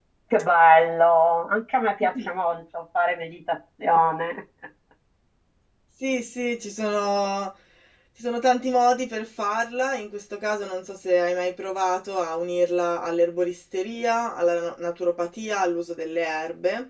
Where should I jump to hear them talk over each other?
none

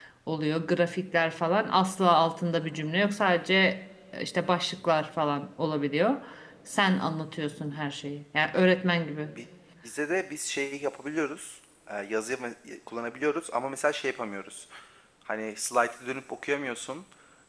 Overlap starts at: none

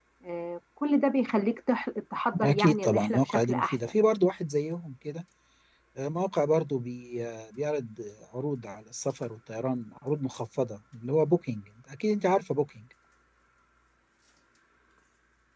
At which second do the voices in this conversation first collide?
2.3 s

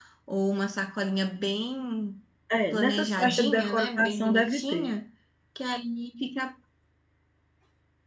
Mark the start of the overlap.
2.7 s

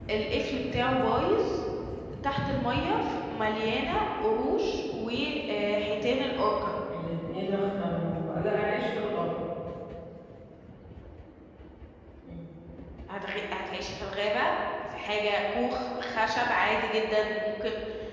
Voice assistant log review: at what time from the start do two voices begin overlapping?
none

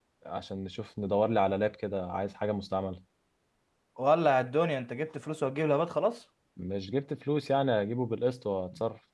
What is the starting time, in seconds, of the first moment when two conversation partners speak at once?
none

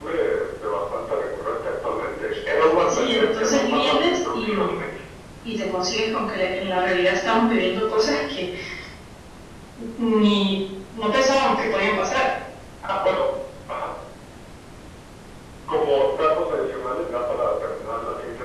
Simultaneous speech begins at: 2.6 s

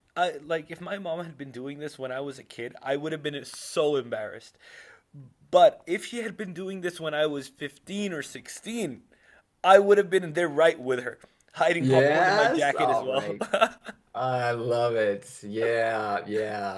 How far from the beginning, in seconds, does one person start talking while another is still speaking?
11.8 s

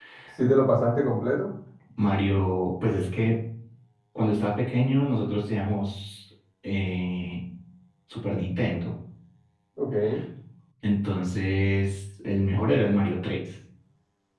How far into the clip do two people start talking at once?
none

